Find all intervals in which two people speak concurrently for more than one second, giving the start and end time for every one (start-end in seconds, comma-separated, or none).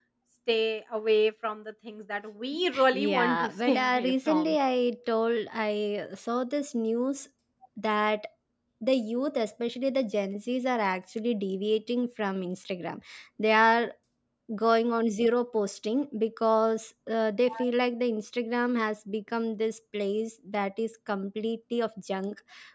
2.9-4.6